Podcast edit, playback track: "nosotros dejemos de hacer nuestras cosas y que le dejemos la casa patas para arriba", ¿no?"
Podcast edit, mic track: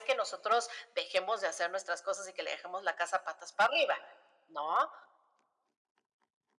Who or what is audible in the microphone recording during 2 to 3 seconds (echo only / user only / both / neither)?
echo only